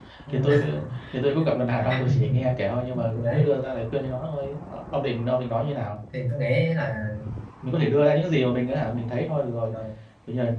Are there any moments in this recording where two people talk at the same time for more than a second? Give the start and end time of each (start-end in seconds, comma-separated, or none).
none